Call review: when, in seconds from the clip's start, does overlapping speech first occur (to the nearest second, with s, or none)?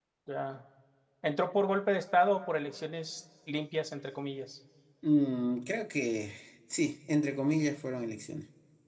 none